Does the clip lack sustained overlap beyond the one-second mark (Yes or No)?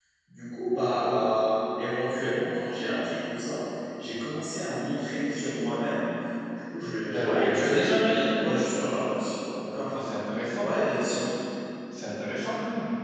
No